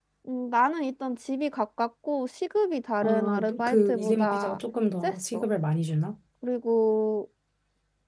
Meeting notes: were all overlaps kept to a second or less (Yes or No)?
No